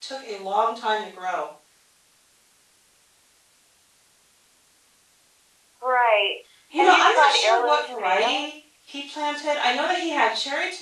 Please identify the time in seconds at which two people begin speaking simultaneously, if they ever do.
6.7 s

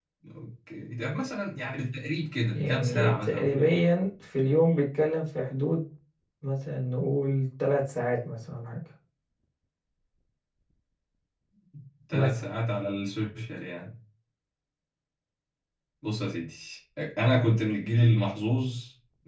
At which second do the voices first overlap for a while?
2.5 s

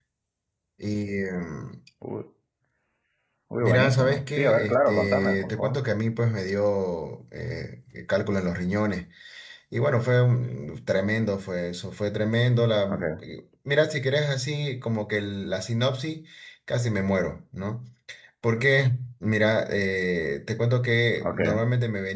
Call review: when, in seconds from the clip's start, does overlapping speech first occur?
3.6 s

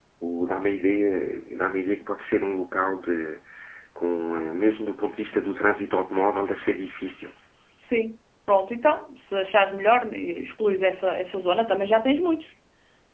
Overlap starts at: none

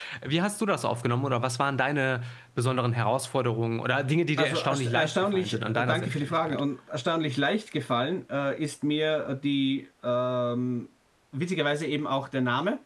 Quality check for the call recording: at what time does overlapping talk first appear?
4.4 s

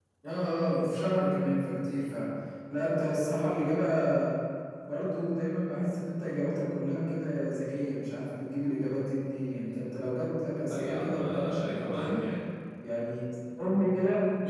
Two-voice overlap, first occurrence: 10.7 s

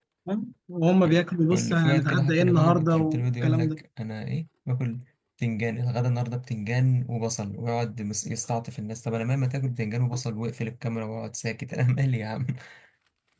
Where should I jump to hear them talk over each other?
1.5 s

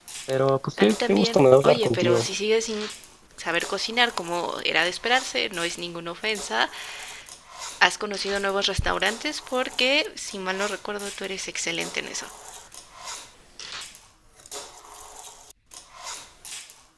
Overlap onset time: 0.8 s

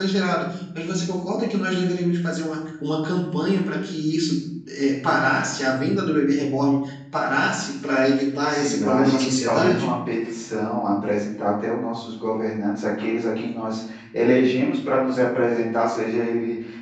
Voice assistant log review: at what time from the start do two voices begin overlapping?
8.5 s

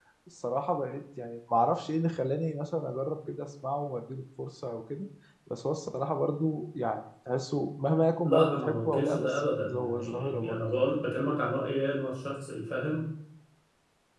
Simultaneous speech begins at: 8.2 s

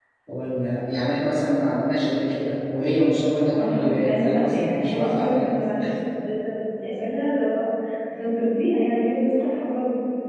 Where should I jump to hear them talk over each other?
3.5 s

